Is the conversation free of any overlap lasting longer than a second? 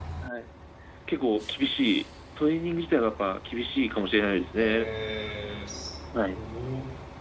Yes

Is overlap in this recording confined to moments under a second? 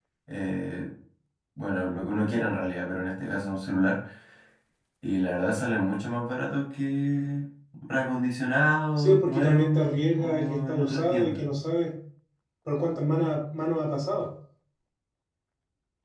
No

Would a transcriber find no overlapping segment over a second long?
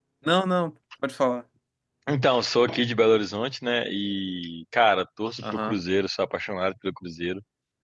Yes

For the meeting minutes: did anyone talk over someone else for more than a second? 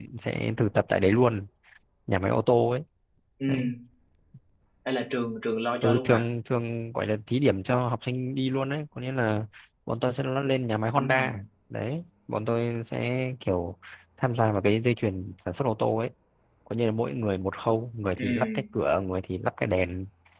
No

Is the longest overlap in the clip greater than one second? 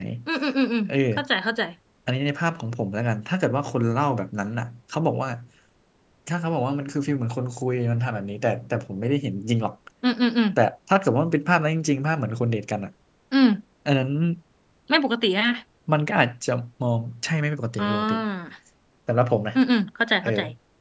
No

